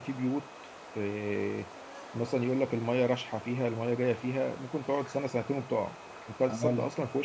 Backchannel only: Yes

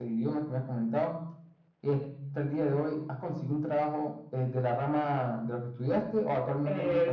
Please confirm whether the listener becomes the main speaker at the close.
Yes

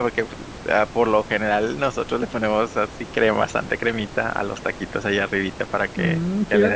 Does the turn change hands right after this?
Yes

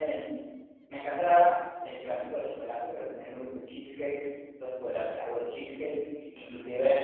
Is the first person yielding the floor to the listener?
No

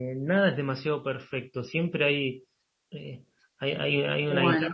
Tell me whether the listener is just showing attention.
Yes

